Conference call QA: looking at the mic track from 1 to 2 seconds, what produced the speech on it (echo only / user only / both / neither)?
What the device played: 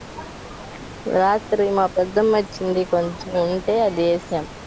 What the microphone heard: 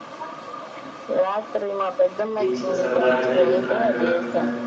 echo only